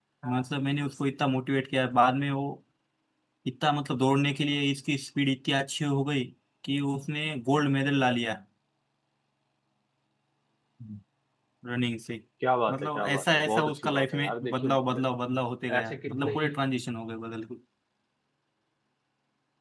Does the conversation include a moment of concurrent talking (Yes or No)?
Yes